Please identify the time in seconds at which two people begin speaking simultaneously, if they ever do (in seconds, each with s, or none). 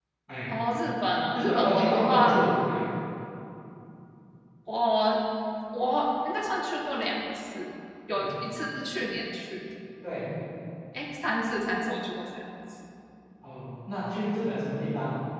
1.1 s